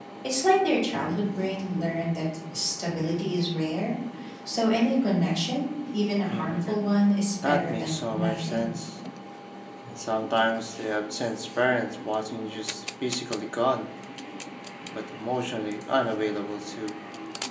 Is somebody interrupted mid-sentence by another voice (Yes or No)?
Yes